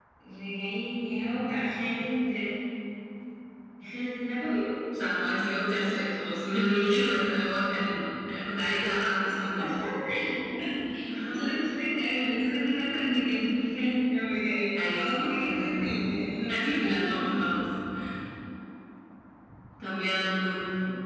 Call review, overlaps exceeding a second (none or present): present